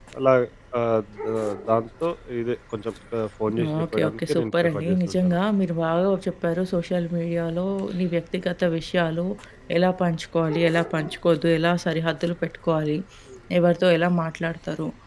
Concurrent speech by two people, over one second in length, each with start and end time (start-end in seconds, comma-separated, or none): 3.8-5.4